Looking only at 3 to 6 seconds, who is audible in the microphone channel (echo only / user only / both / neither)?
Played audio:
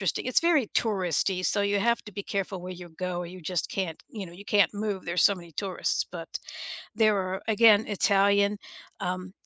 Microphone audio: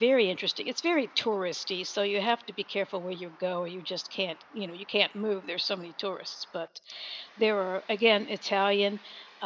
echo only